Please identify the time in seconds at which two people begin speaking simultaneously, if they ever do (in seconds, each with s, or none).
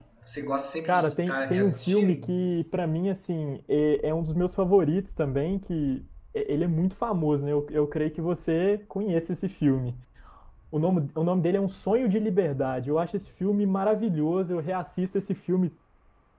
0.9 s